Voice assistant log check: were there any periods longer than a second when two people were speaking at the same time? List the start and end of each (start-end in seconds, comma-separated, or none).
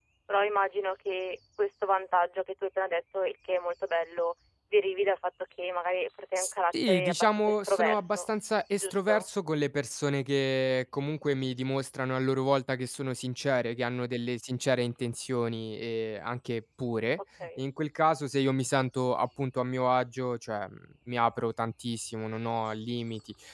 6.9-8.3